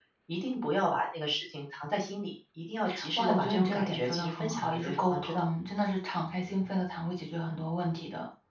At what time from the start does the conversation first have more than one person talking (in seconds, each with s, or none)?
3.2 s